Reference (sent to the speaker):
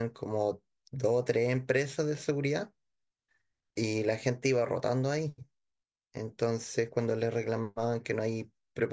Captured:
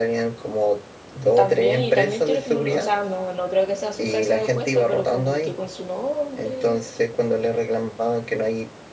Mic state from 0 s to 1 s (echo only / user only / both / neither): echo only